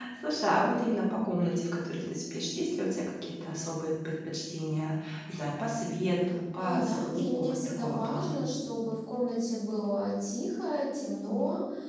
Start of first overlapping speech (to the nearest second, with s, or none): 7 s